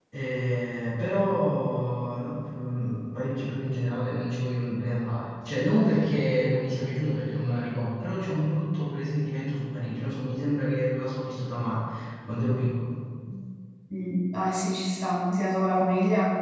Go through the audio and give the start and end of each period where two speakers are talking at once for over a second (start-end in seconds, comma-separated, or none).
none